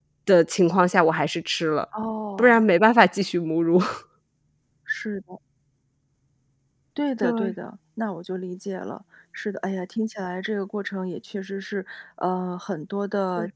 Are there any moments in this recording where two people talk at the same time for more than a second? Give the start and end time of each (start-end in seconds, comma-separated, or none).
none